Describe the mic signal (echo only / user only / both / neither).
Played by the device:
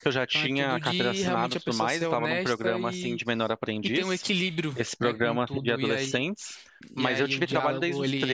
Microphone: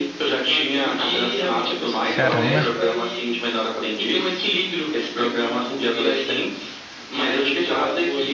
both